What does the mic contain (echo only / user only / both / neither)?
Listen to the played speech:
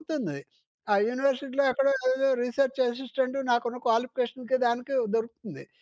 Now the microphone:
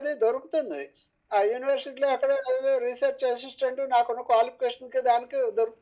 echo only